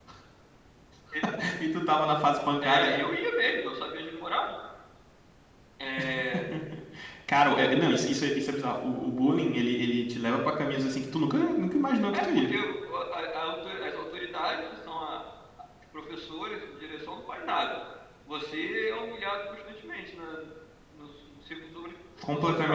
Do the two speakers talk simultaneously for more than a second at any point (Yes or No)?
No